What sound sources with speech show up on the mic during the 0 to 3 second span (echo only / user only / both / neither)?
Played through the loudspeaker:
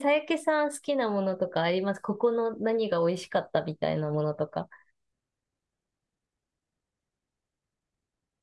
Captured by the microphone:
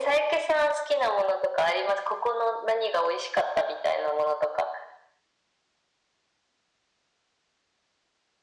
echo only